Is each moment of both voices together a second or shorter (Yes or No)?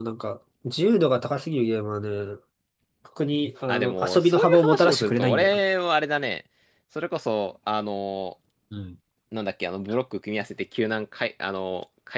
No